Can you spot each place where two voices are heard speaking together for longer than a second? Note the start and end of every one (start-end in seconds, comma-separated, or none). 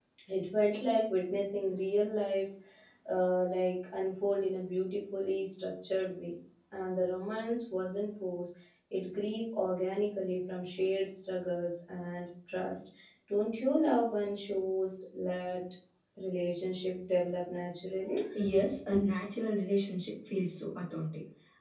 none